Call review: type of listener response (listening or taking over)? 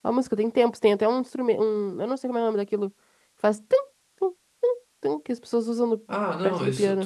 taking over